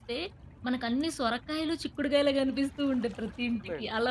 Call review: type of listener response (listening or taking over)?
taking over